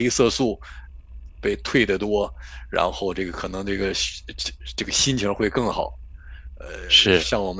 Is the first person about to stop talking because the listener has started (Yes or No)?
No